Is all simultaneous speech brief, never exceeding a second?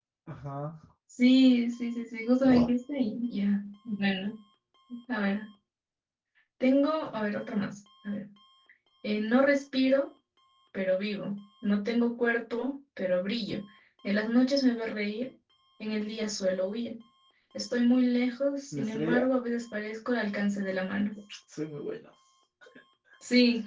Yes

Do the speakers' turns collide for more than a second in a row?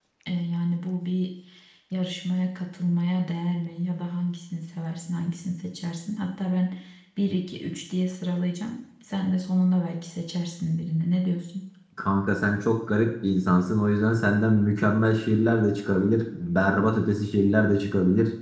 No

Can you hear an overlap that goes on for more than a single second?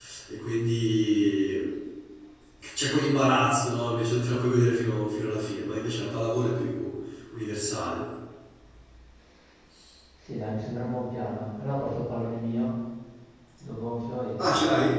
No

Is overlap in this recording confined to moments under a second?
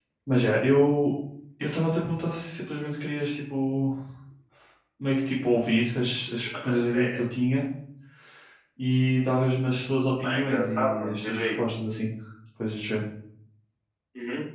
No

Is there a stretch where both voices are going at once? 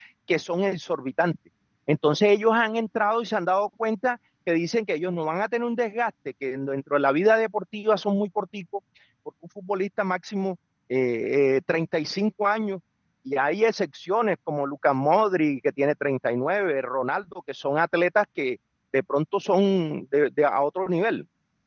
No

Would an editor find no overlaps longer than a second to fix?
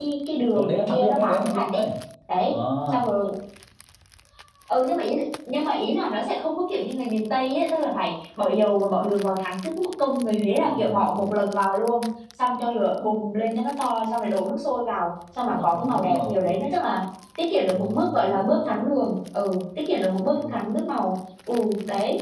No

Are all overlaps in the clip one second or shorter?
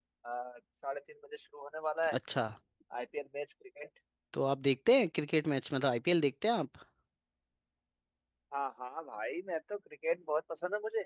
Yes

